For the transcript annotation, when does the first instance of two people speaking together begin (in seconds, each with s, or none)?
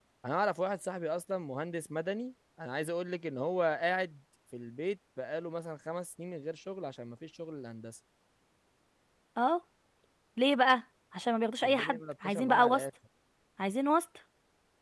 11.6 s